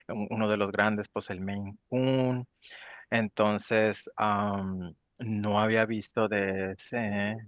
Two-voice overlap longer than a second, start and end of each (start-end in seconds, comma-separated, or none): none